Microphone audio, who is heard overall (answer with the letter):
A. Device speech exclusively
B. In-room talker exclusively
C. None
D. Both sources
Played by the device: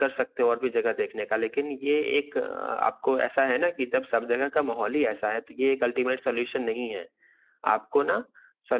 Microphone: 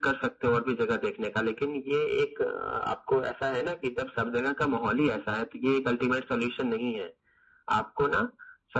A